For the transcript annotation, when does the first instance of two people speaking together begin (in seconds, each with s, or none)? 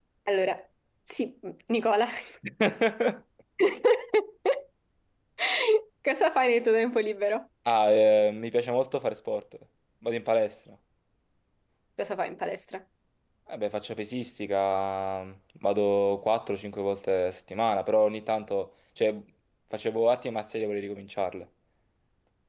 none